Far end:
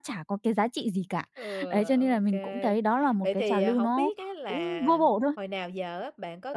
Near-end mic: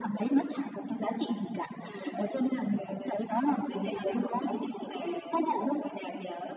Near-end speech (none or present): none